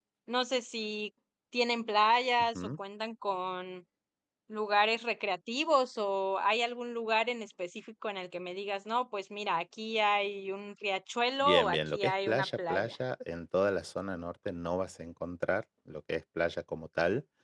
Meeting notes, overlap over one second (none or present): present